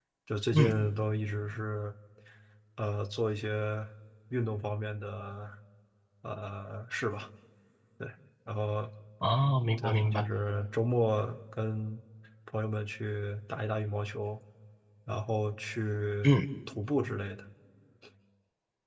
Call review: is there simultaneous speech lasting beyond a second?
No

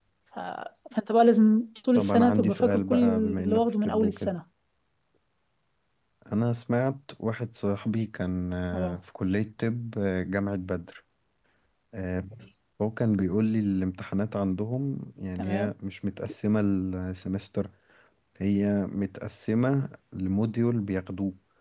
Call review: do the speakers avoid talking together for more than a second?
No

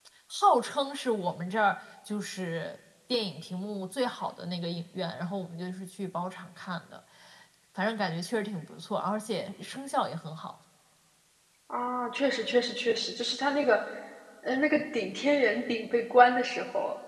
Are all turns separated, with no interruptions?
Yes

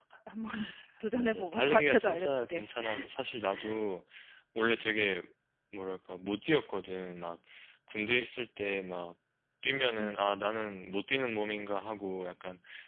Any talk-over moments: Yes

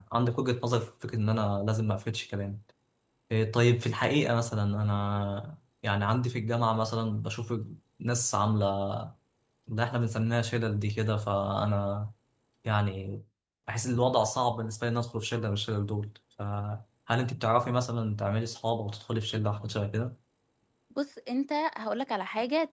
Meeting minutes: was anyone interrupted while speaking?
No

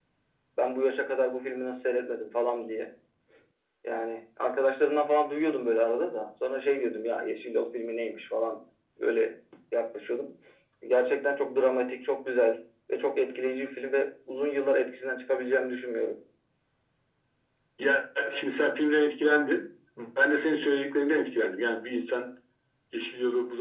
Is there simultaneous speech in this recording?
No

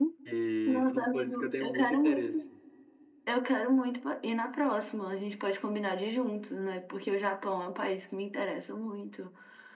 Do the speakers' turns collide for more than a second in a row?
Yes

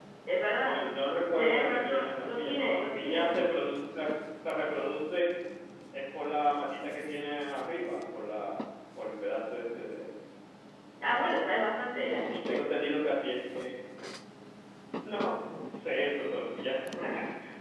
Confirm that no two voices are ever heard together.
No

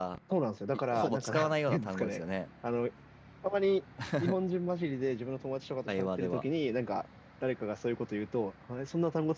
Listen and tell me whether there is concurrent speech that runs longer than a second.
Yes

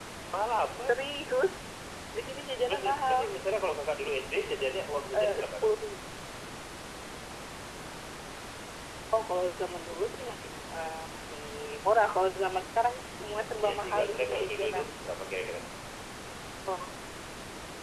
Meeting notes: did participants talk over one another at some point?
Yes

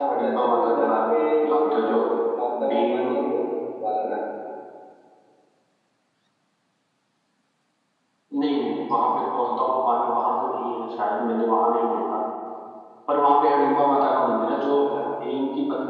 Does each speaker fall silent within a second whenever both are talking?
No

